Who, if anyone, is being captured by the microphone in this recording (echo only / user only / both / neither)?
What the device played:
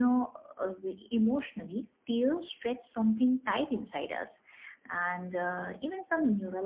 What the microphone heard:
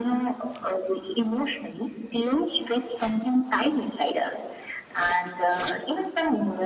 echo only